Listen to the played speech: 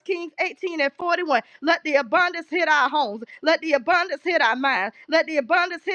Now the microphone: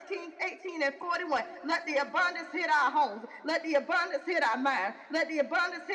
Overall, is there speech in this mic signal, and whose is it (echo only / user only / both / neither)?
echo only